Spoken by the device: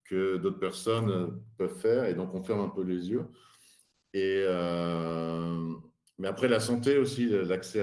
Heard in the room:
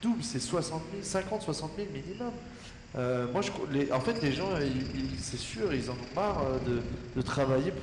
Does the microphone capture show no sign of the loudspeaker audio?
Yes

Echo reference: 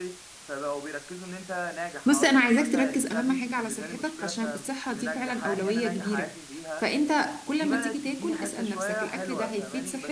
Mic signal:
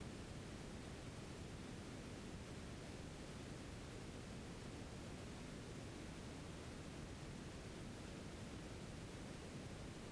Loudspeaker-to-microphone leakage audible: No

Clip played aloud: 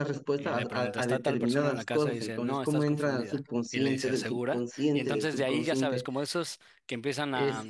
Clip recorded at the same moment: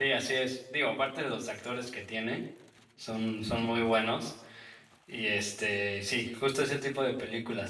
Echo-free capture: Yes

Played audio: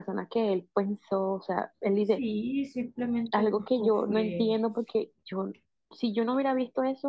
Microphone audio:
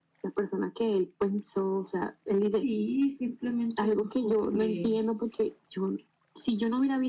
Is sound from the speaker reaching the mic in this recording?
Yes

